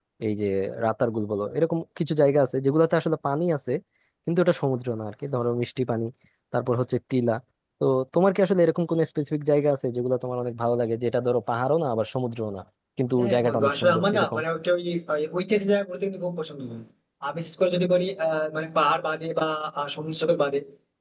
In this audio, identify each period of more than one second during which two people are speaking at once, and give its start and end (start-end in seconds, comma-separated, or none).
13.2-14.4